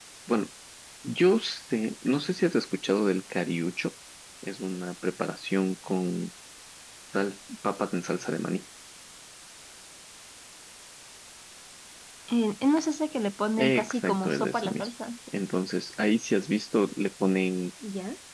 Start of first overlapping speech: 14 s

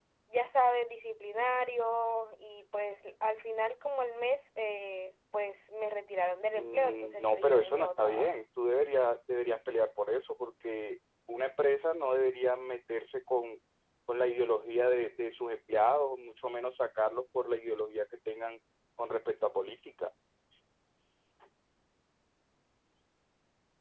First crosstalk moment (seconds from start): 7 s

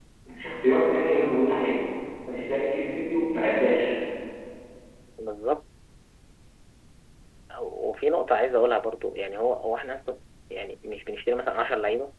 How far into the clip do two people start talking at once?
none

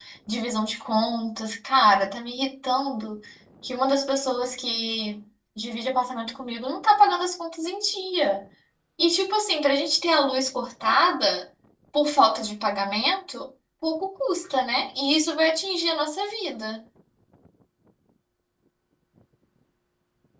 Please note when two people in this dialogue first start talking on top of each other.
none

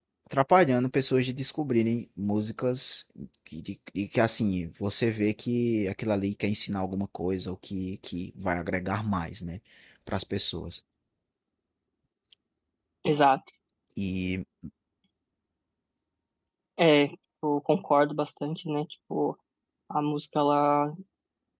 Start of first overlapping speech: none

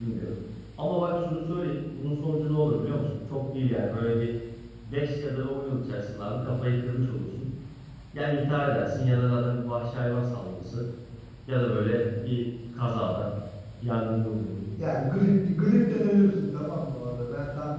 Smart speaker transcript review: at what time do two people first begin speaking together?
none

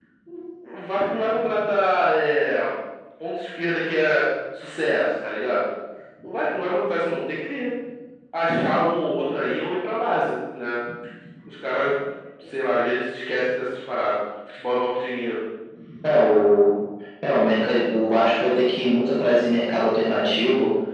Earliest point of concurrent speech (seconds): none

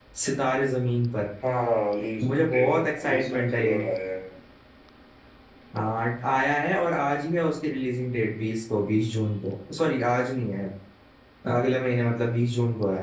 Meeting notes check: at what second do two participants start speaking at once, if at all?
2 s

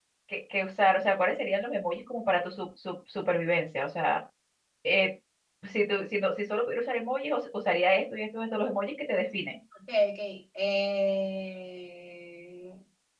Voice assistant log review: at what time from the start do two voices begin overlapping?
none

